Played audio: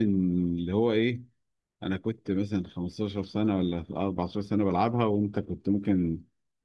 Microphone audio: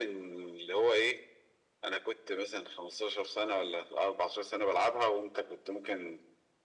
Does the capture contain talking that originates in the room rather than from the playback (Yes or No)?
No